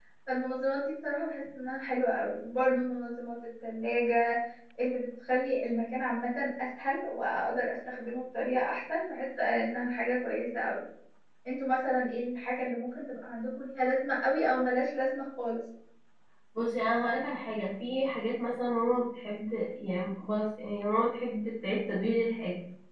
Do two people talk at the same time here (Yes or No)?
No